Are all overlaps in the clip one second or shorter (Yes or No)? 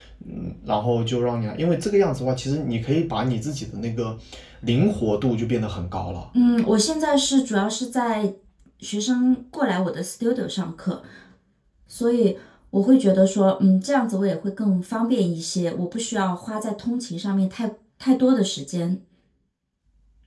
Yes